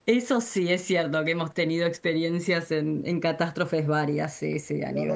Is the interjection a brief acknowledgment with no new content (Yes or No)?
No